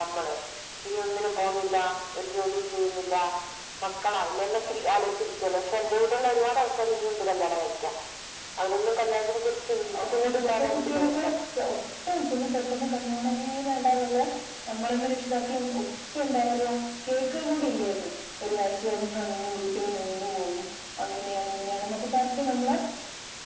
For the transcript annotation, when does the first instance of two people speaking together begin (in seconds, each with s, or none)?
9.9 s